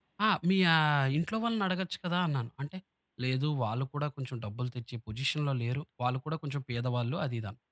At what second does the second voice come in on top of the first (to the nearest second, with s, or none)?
none